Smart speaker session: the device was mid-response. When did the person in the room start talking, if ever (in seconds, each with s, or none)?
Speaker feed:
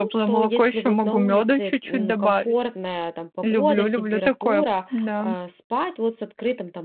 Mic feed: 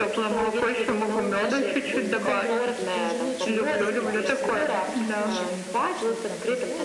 1.3 s